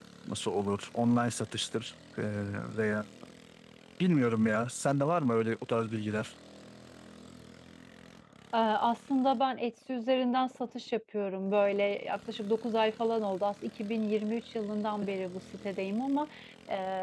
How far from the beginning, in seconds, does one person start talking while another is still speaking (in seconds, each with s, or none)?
none